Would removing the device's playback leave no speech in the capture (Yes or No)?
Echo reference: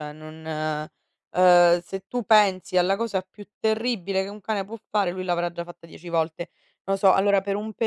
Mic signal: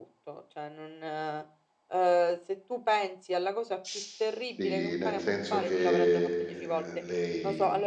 No